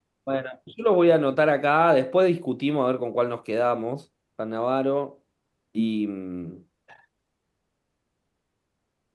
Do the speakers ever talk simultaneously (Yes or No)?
No